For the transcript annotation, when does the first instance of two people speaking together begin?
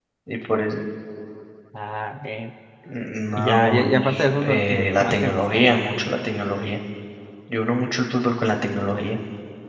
3.4 s

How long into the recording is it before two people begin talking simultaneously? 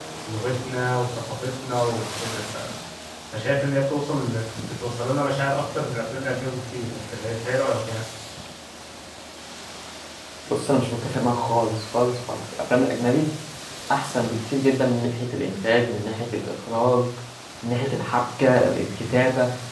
none

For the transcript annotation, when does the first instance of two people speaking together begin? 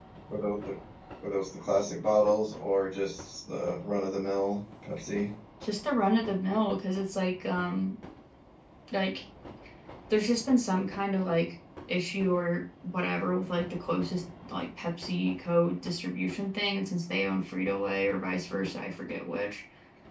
none

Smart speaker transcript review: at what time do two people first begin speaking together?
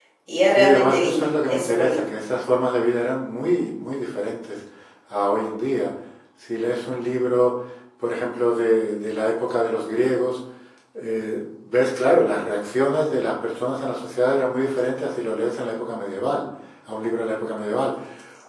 0.6 s

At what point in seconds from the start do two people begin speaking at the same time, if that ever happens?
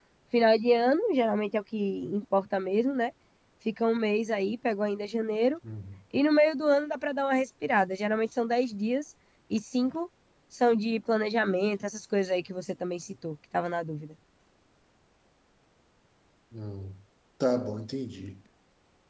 none

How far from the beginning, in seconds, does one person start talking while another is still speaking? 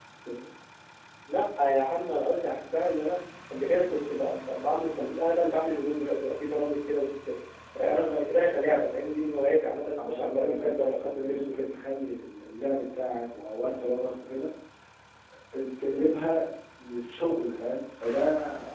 10.0 s

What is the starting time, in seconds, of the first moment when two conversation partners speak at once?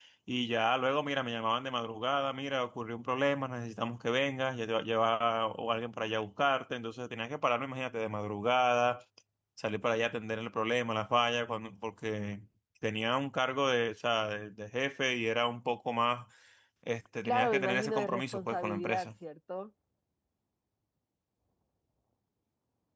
17.2 s

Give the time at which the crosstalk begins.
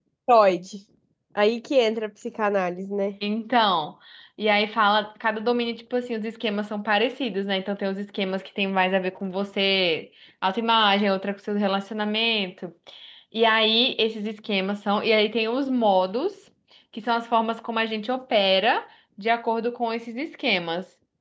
none

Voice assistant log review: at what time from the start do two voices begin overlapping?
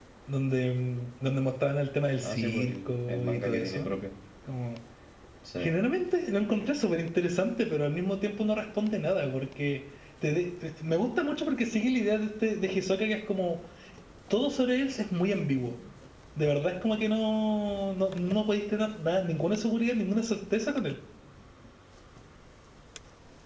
2.2 s

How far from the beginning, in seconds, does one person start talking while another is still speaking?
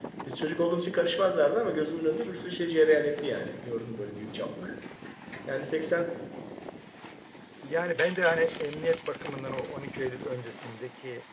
none

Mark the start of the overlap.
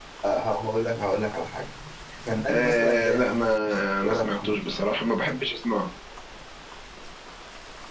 2.5 s

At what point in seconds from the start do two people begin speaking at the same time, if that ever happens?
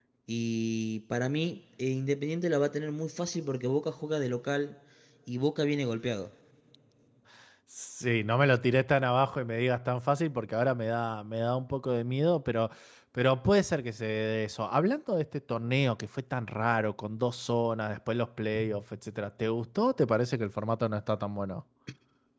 none

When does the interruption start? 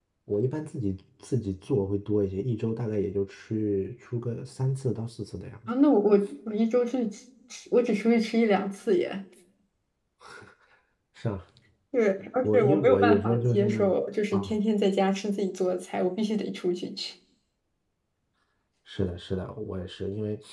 12.4 s

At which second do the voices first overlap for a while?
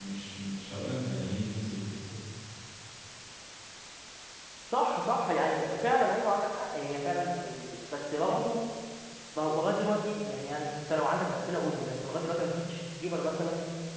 none

